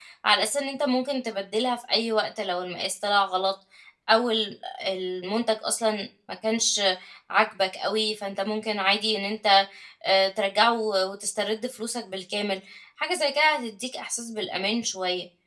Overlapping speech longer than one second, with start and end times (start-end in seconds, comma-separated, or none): none